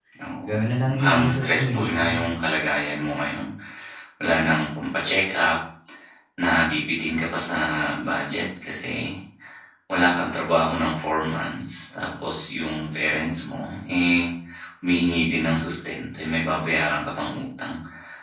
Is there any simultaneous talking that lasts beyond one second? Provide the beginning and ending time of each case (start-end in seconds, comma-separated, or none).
0.9-2.2